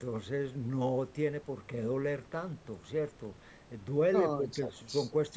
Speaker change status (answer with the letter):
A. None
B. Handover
A